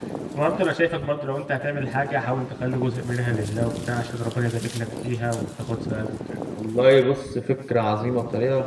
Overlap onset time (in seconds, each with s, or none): none